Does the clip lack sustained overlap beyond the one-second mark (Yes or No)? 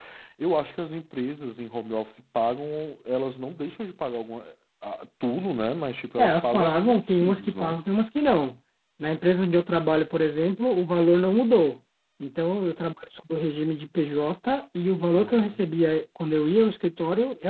No